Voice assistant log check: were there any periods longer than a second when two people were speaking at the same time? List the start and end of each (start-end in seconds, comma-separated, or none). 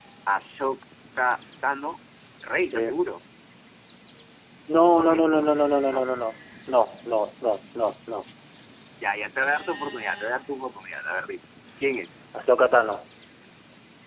none